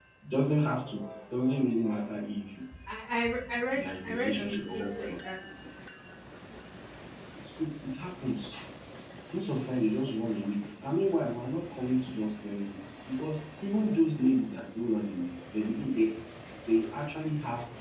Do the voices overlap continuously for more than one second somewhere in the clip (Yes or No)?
Yes